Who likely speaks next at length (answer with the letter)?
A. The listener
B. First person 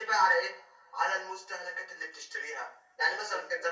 B